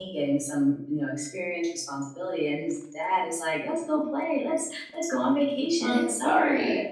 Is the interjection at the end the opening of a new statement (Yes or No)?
No